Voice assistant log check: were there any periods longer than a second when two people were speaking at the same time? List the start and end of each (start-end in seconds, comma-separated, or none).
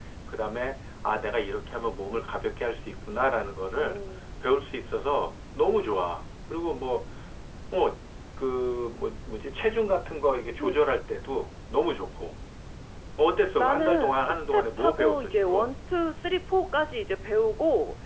13.6-15.7